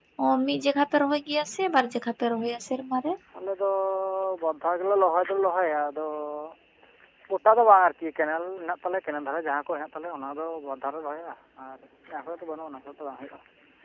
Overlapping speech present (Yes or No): No